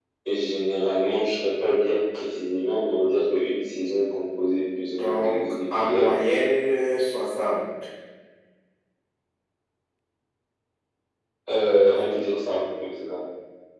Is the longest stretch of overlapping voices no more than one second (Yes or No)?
No